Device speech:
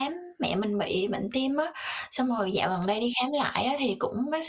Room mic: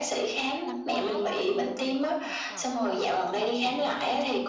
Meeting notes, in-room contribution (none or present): present